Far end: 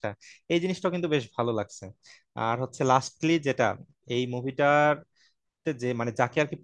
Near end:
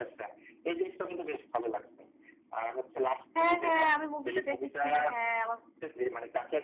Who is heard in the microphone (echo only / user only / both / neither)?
both